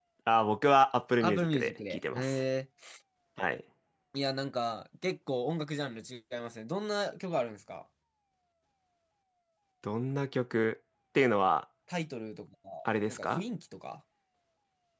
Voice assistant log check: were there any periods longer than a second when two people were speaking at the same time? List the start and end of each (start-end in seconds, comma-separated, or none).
1.2-2.4